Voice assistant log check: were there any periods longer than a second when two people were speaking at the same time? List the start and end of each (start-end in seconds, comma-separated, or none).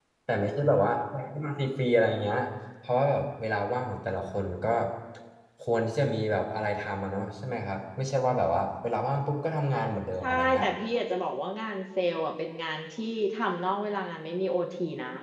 none